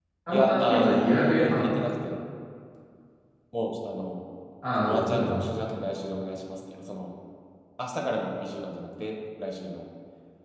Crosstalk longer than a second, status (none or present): present